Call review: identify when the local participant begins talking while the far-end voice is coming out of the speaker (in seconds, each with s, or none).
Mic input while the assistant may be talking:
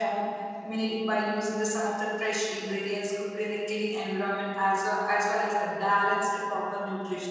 none